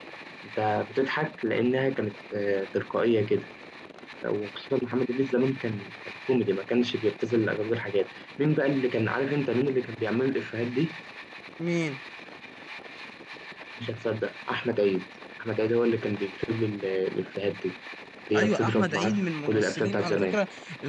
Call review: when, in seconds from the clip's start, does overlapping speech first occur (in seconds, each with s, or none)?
18.4 s